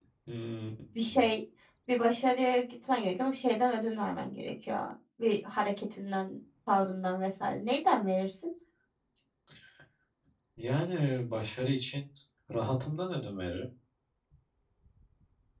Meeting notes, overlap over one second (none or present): none